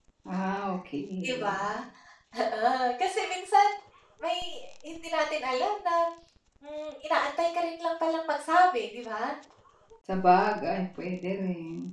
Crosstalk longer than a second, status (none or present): none